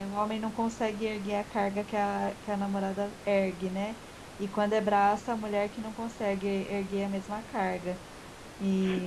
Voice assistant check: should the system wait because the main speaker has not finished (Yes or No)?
Yes